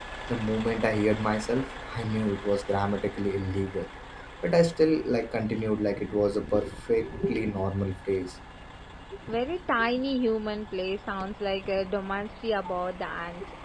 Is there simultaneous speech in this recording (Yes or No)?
No